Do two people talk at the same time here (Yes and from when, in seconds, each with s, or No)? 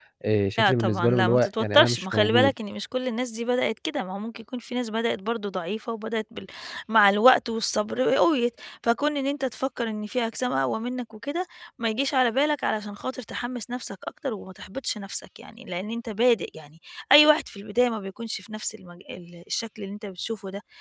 Yes, from 0.6 s